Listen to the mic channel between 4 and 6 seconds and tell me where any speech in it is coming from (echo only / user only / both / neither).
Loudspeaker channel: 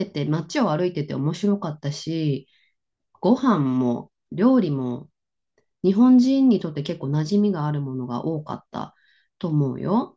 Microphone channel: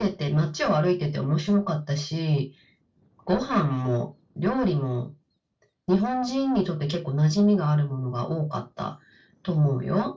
echo only